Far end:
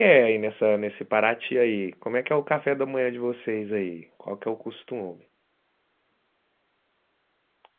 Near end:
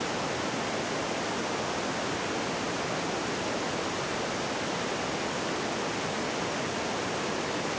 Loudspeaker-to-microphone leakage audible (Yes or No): No